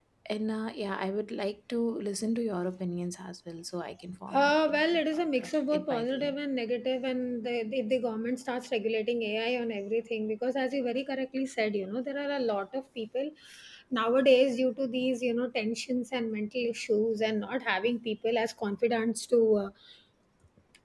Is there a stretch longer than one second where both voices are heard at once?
Yes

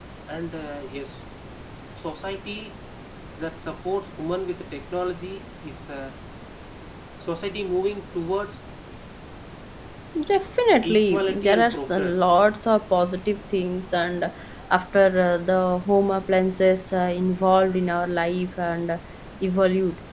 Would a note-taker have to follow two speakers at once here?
Yes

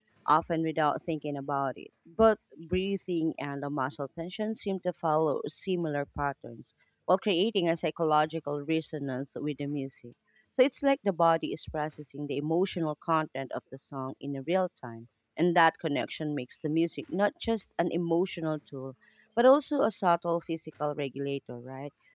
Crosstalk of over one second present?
No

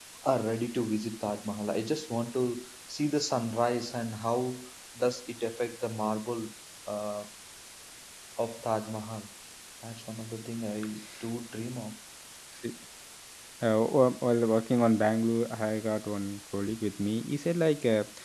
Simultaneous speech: No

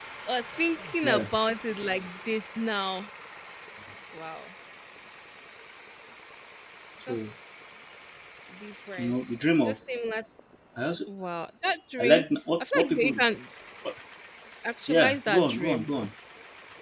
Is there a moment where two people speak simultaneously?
Yes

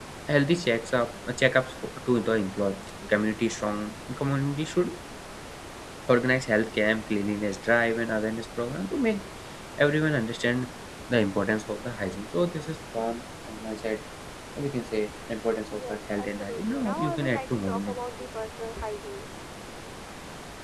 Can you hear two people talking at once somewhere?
Yes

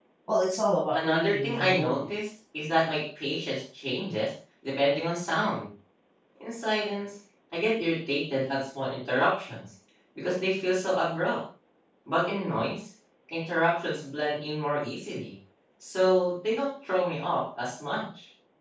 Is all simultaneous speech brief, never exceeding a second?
No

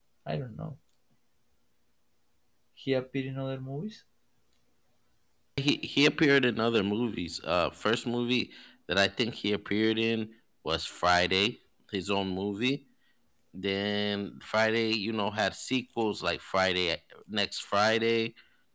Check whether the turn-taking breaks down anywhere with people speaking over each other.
No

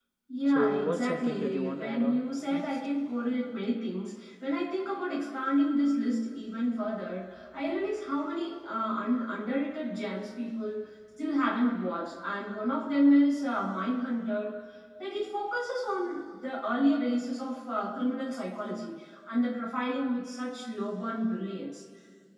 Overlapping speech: Yes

